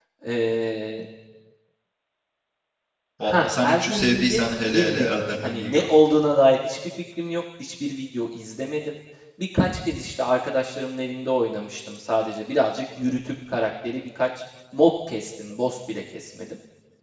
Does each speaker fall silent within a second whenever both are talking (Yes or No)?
No